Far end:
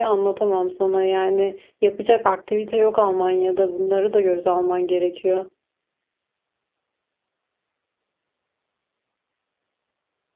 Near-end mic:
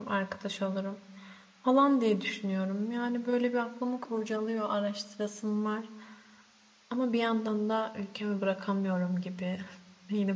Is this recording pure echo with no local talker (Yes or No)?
No